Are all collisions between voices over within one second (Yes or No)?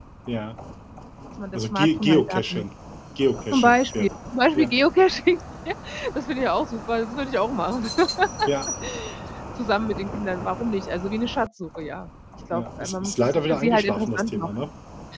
No